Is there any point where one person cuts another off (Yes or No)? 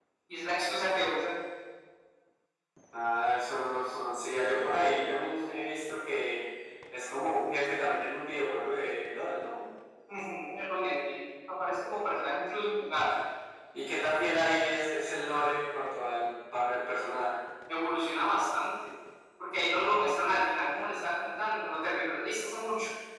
No